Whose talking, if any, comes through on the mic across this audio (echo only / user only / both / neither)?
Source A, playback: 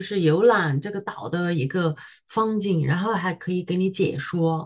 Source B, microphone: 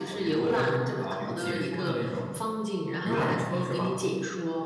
both